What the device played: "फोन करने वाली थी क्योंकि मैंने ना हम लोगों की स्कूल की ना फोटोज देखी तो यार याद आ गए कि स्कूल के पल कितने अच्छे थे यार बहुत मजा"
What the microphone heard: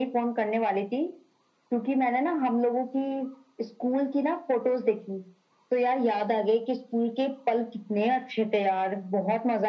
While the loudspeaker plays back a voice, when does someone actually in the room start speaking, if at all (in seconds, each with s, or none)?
none